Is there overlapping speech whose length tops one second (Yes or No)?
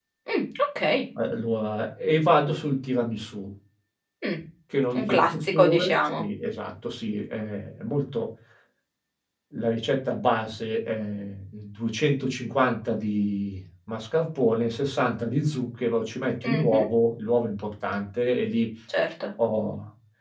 Yes